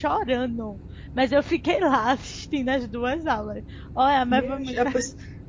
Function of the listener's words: taking over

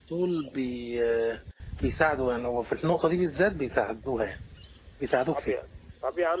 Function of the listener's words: taking over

